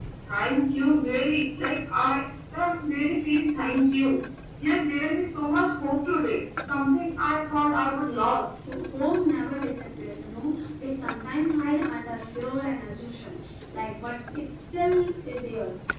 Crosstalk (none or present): none